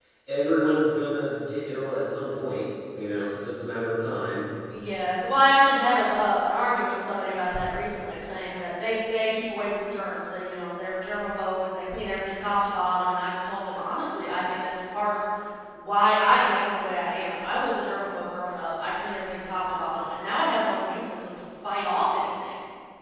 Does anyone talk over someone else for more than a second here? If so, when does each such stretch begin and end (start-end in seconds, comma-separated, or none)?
none